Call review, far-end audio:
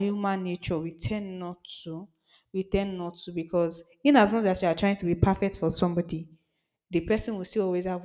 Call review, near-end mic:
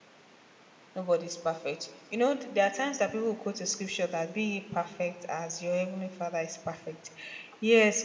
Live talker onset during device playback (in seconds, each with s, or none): 0.9 s